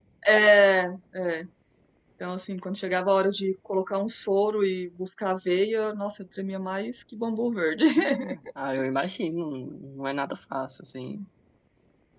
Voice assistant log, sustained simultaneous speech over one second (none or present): none